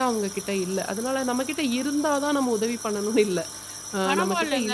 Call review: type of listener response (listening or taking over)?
taking over